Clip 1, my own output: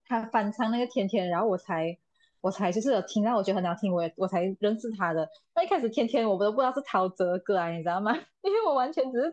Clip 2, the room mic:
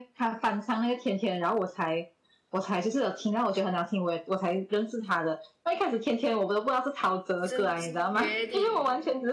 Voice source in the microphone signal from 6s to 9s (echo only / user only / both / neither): both